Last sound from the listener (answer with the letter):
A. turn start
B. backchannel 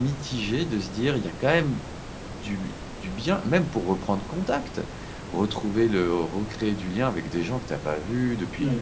A